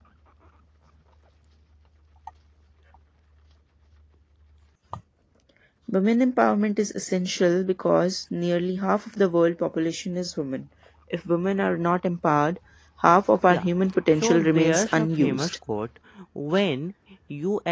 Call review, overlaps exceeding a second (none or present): present